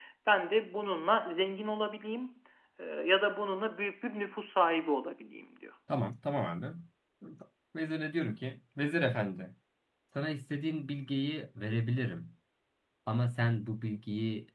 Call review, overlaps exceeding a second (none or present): none